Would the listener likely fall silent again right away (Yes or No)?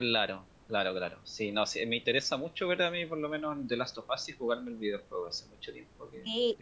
No